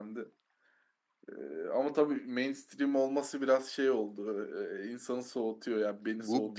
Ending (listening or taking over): taking over